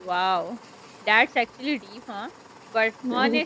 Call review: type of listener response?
listening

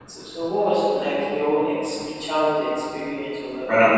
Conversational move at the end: taking over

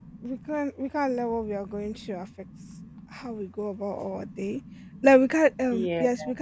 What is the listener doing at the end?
listening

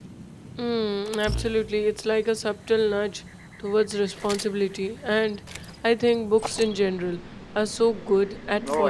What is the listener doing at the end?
taking over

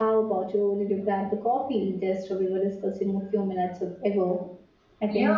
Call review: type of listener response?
taking over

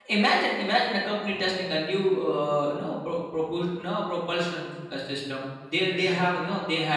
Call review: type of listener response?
listening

